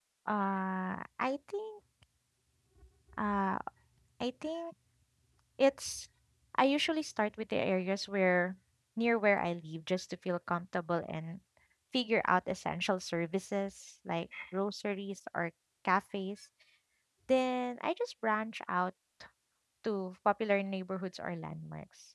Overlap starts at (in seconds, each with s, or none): none